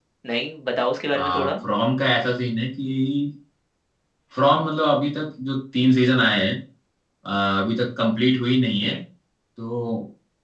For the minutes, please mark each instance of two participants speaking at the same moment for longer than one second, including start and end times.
none

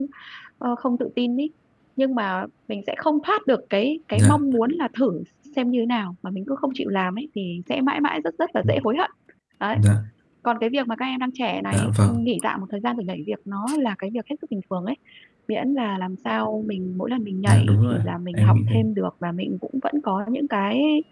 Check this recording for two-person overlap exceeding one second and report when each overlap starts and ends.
17.4-18.8

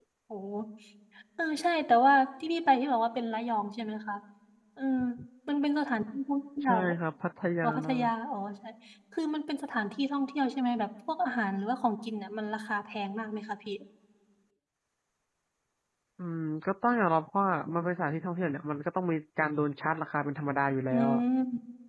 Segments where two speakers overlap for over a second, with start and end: none

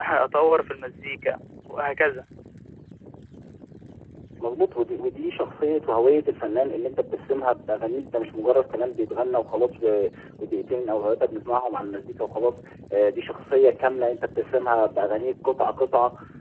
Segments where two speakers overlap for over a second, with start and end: none

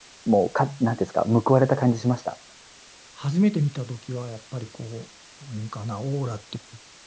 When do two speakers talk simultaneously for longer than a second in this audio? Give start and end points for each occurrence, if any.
none

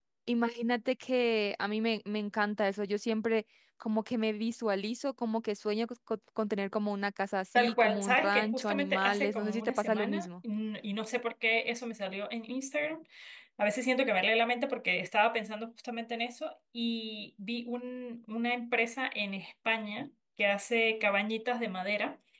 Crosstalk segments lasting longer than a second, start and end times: 7.6-10.3

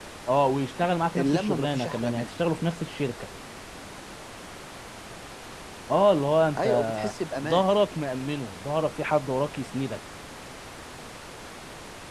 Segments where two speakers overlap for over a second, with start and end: 1.2-2.4

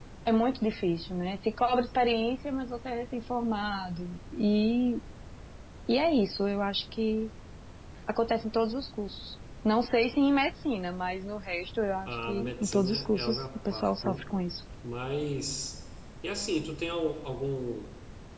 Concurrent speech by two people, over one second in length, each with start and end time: 12.0-14.2

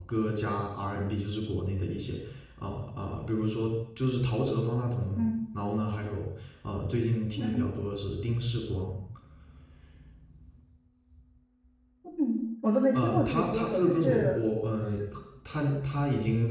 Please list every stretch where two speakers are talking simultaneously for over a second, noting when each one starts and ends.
12.9-14.4

